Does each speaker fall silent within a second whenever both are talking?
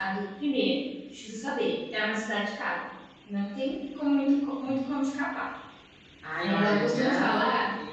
No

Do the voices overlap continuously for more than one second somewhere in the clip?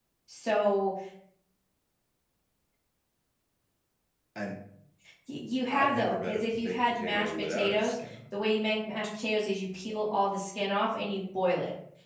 Yes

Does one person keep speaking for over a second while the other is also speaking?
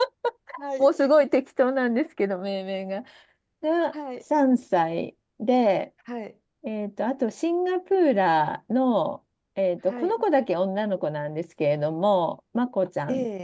No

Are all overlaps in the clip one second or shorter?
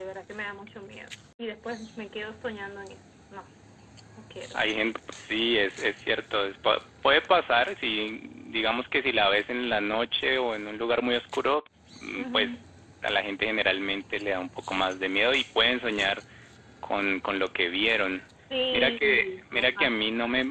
No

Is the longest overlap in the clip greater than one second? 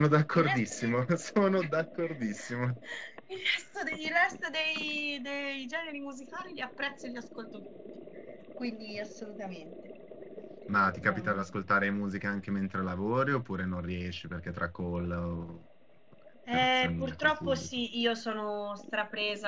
Yes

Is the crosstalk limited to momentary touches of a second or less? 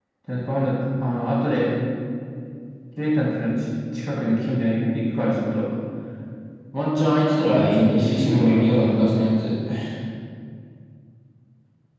No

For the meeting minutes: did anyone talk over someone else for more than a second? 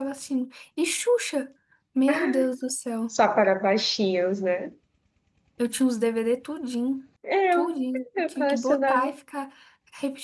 Yes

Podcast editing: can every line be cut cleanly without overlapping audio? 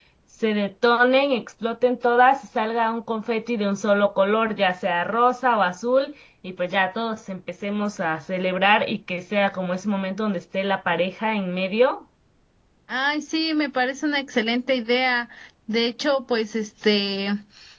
Yes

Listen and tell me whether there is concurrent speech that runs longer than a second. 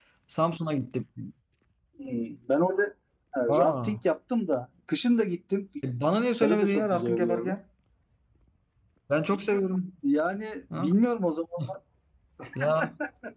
Yes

